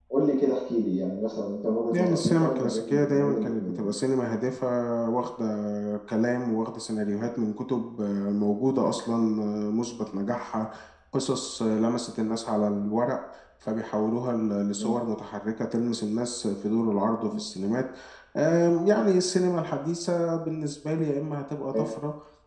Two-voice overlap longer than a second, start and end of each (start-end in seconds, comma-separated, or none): 1.9-3.9